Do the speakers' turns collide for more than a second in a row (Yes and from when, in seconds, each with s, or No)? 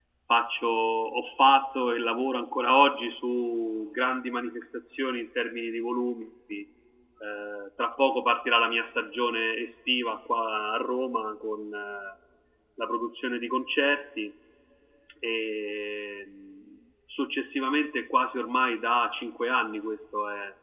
No